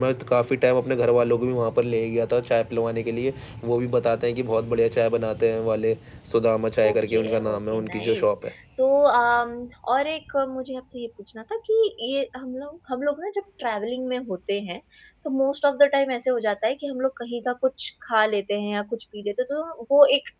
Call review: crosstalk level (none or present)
present